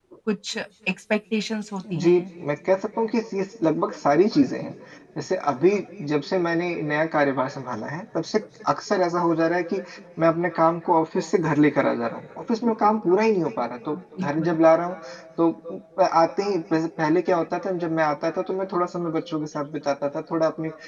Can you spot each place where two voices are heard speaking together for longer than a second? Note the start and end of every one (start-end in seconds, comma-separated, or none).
none